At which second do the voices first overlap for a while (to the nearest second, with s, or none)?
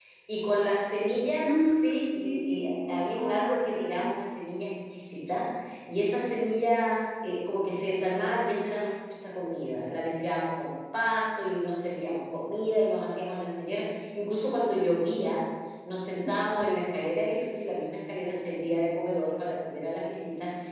1 s